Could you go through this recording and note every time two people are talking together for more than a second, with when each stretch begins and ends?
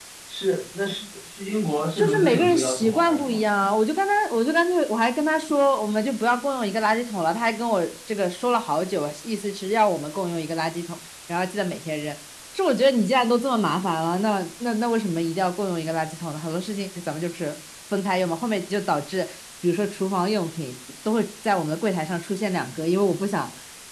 2.0-3.4

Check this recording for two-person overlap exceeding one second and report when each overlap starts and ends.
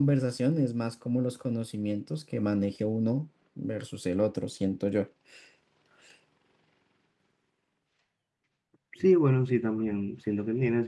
none

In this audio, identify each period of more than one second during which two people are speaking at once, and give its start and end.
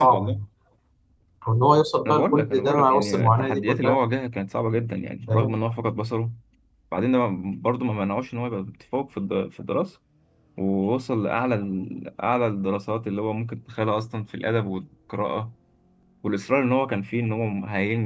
2.0-4.0

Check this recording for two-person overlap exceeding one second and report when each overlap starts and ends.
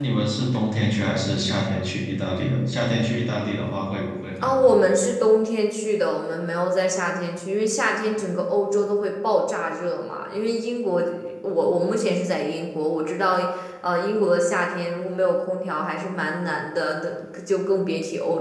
none

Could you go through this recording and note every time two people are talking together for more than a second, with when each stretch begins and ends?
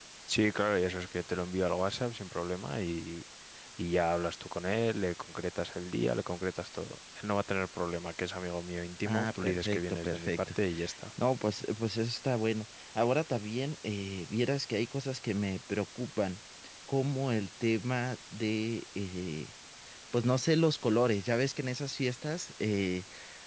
9.0-10.4

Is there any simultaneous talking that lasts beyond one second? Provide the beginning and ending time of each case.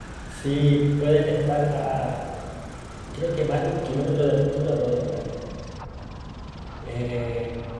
none

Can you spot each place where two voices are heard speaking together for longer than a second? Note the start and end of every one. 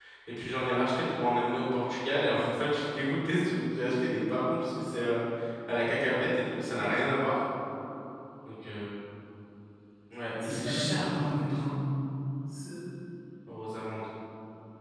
10.4-11.7

